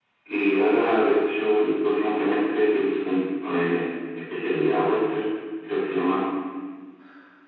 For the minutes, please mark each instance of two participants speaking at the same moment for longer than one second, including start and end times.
none

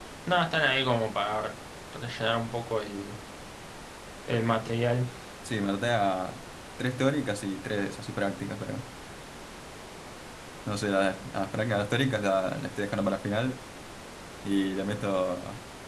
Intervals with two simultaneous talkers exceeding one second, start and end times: none

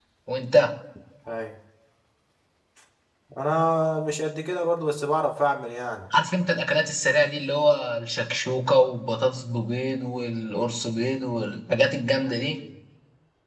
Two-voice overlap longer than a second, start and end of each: none

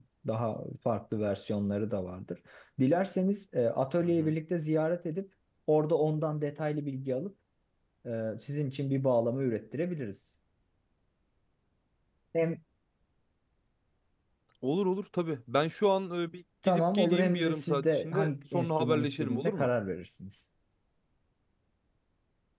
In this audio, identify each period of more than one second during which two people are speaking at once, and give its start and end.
16.6-19.7

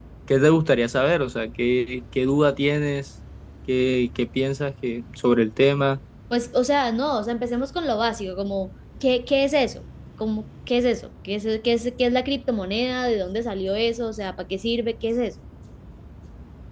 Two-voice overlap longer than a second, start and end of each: none

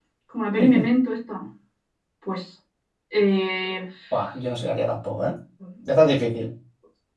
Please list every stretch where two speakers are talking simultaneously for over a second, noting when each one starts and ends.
none

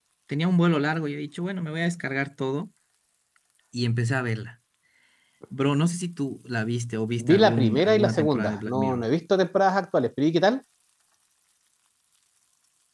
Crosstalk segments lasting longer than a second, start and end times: 7.3-9.1

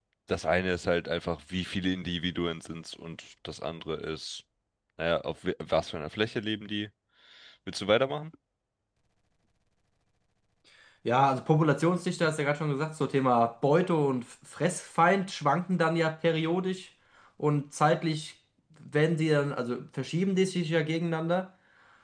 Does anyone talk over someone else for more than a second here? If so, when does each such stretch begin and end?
none

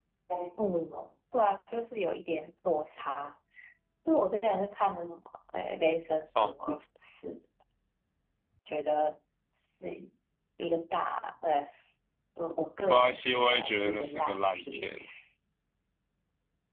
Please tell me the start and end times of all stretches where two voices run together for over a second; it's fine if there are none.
12.9-14.9

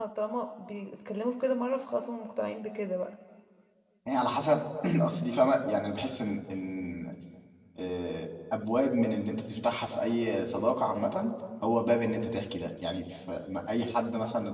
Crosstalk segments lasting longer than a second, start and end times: none

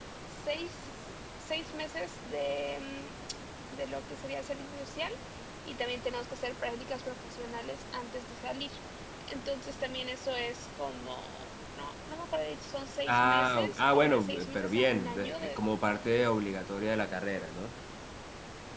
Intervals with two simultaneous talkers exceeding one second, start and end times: 13.1-15.6

